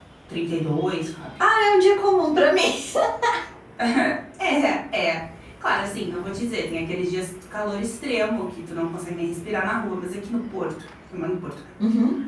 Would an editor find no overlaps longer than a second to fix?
Yes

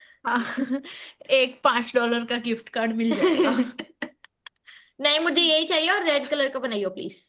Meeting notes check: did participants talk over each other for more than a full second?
No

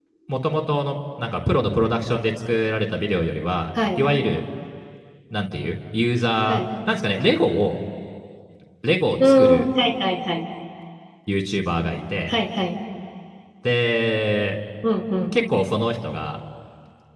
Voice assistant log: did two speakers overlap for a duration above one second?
No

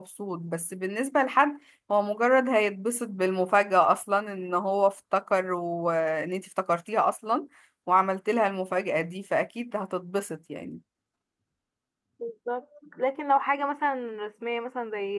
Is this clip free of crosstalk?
Yes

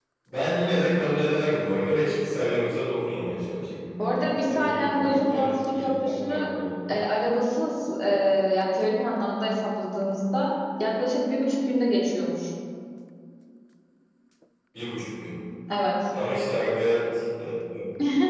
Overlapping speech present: Yes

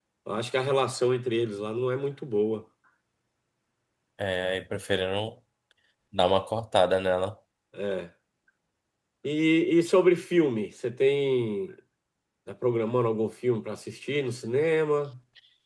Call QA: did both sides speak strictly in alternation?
Yes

